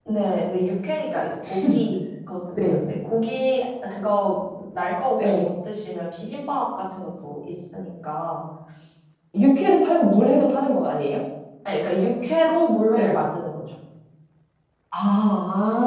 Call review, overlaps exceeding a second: none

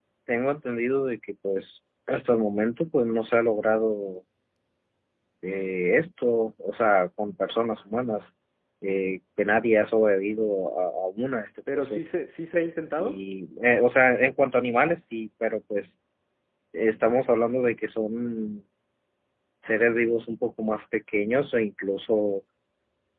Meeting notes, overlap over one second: none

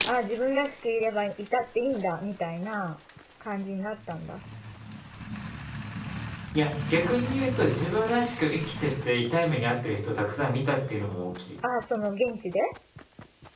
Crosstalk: none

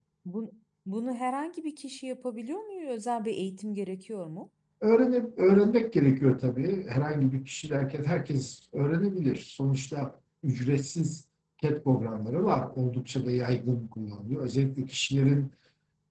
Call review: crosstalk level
none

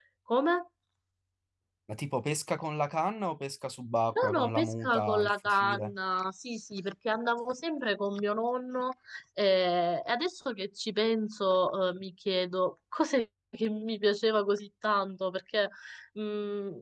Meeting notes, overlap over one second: present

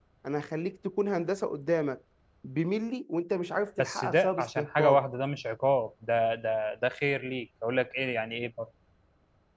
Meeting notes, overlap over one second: present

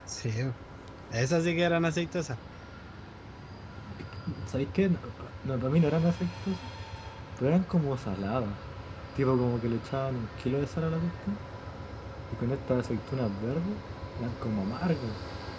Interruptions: none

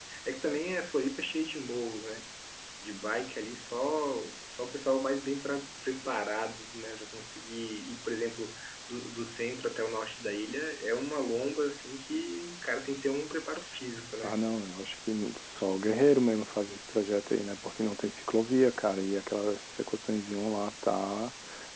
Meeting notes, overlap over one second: none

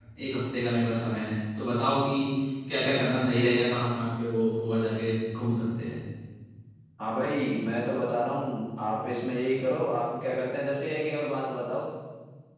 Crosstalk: none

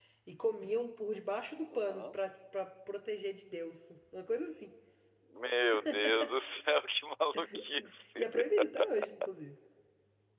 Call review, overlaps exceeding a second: none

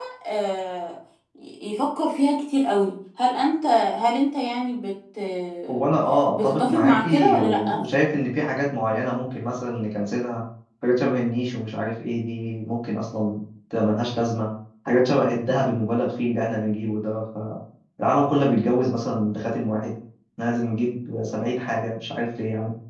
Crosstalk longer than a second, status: present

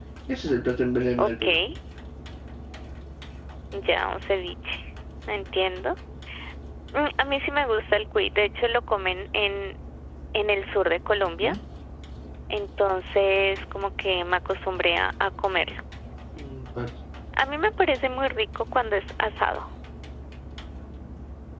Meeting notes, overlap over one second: none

